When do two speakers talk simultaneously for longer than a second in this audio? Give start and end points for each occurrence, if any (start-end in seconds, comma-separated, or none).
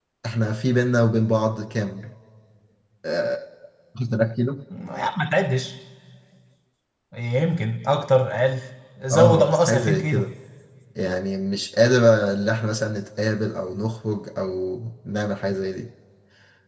9.1-10.3